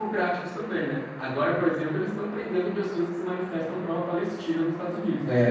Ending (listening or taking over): taking over